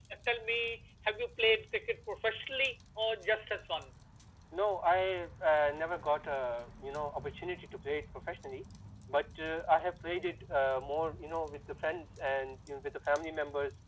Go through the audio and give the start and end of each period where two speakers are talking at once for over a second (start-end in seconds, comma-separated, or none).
none